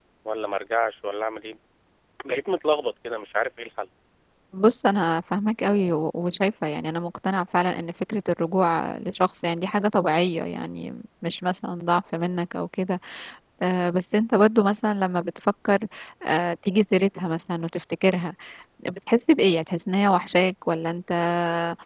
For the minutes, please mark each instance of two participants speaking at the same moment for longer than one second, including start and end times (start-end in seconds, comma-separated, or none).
none